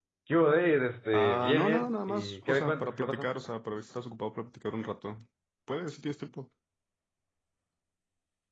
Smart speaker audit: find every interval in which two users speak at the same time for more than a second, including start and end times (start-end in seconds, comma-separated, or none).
1.1-3.3